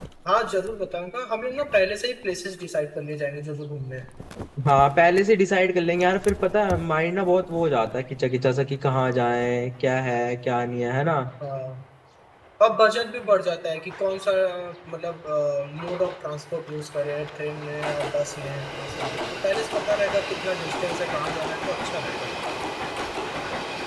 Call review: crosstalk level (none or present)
none